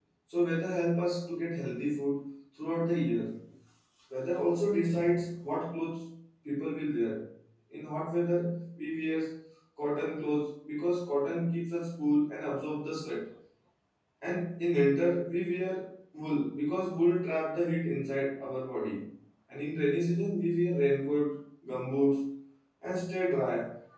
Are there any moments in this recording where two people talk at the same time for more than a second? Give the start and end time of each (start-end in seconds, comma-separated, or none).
none